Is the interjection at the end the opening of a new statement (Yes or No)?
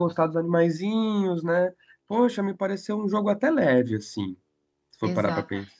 Yes